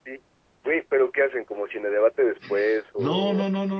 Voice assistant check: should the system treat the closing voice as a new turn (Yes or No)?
Yes